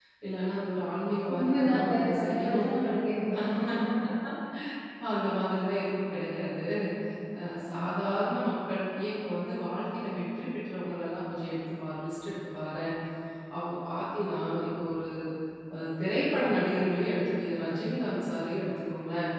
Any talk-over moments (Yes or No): Yes